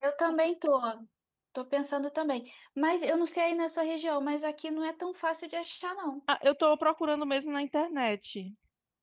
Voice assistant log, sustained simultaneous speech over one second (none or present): none